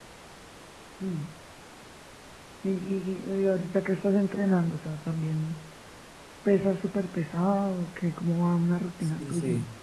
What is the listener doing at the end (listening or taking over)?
taking over